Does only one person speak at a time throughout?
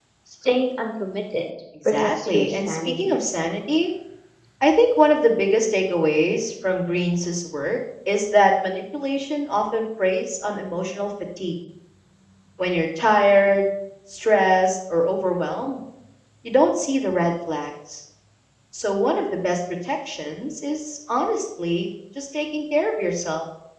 No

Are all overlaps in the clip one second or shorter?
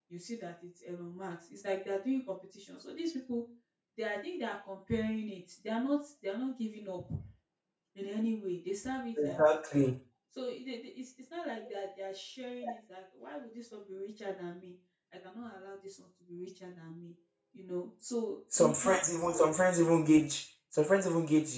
Yes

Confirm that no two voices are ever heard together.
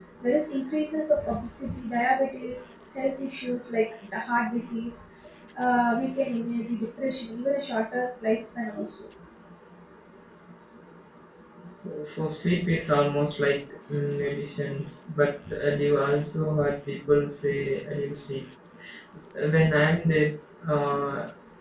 Yes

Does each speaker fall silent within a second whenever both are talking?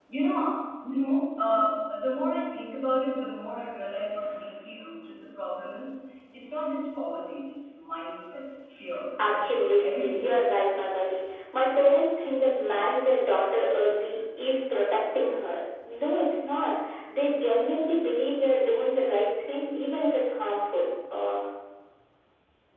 No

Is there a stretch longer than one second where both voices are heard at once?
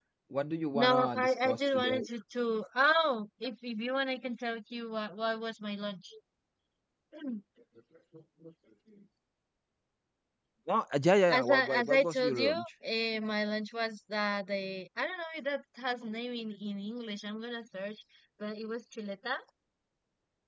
Yes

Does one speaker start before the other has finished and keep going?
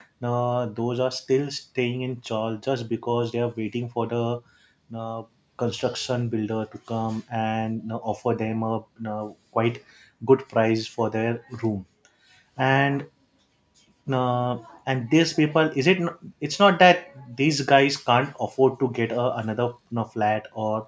No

